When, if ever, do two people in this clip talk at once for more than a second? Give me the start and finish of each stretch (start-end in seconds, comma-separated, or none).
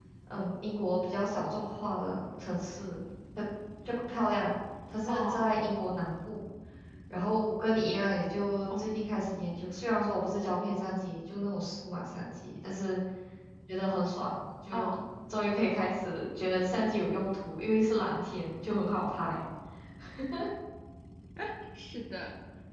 none